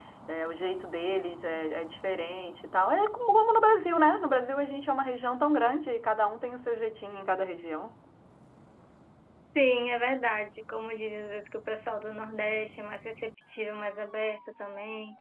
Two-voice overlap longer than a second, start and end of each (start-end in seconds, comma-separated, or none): none